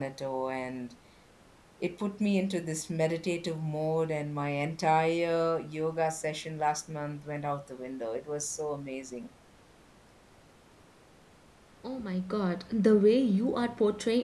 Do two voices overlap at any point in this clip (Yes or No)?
No